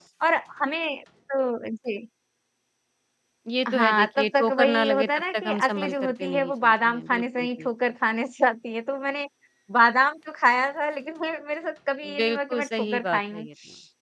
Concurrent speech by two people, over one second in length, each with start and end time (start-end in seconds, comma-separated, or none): 3.7-7.7, 12.0-13.5